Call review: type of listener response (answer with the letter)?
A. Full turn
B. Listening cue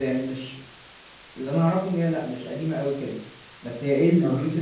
B